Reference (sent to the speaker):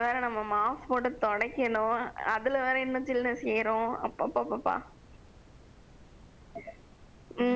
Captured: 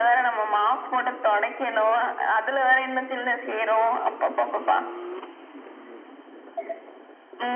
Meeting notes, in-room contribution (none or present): none